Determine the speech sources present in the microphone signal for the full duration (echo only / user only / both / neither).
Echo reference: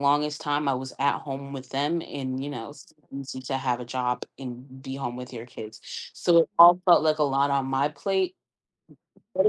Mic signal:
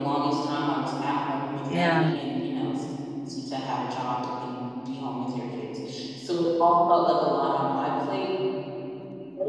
both